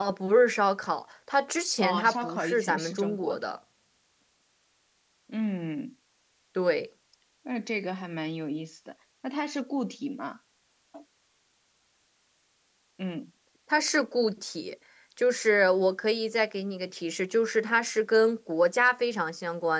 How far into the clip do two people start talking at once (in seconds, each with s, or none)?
1.8 s